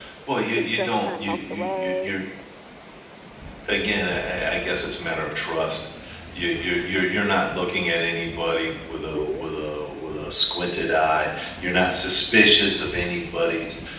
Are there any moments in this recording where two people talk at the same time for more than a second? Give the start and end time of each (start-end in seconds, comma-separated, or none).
0.6-2.1